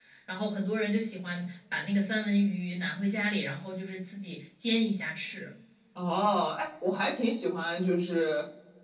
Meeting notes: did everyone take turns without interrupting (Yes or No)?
Yes